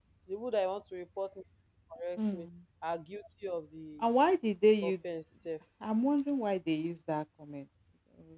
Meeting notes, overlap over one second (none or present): none